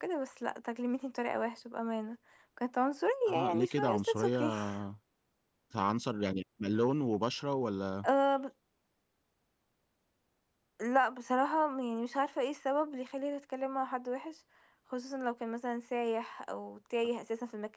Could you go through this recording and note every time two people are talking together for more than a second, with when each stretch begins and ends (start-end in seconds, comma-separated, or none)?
3.3-4.5